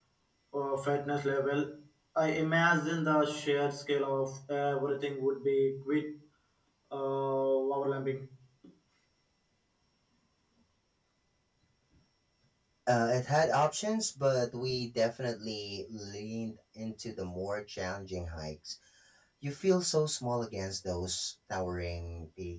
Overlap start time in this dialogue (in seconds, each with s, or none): none